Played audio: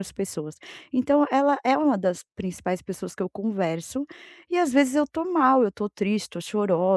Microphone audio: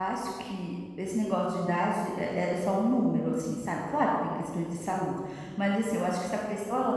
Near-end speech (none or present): present